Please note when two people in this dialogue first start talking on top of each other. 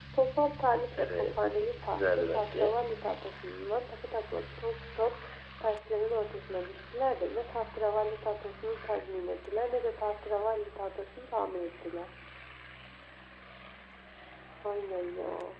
1.0 s

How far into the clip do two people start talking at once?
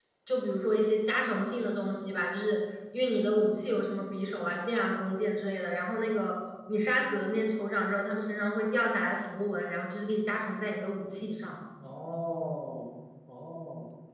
none

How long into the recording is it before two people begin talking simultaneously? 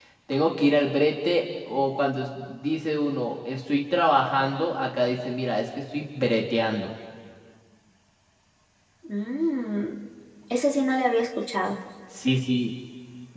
none

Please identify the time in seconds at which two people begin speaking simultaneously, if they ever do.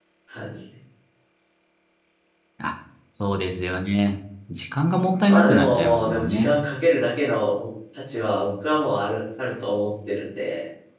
5.3 s

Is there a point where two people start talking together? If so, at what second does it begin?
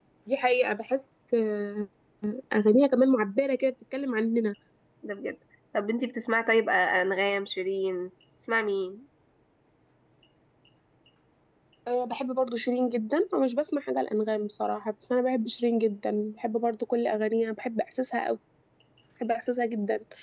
none

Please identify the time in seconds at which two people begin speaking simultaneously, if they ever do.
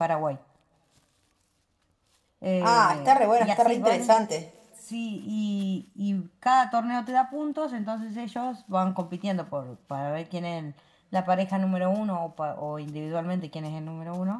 2.6 s

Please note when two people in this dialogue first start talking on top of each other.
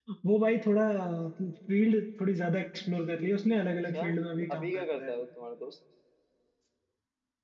3.9 s

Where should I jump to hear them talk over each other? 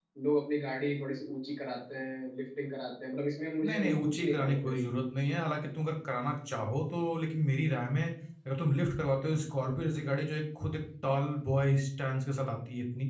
3.6 s

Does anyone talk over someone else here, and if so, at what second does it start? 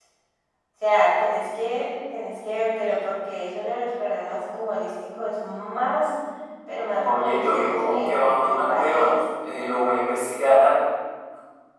7.0 s

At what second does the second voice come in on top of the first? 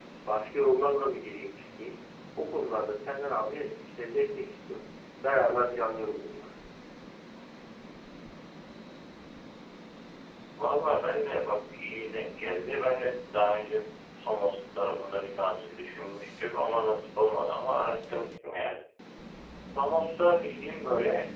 none

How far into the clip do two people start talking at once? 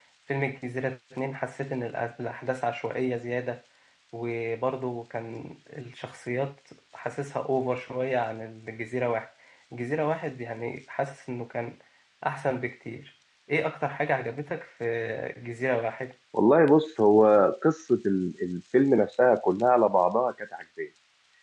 none

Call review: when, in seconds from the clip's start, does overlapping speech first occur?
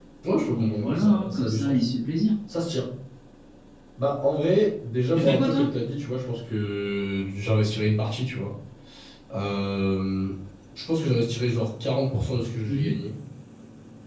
0.5 s

